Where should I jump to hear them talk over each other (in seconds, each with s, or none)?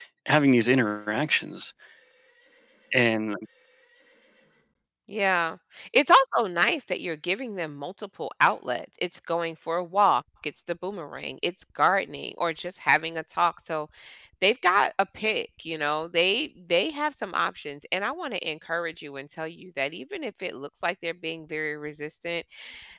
none